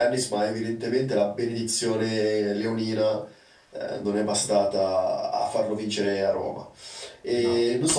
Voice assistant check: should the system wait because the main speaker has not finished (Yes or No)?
Yes